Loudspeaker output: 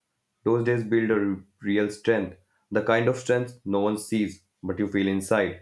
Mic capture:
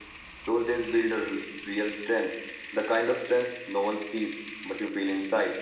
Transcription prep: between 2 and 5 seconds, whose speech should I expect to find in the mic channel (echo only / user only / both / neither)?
echo only